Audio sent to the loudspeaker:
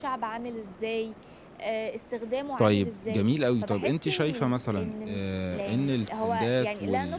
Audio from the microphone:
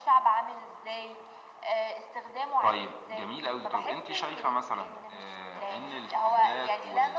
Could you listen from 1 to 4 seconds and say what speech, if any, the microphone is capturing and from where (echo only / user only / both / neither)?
echo only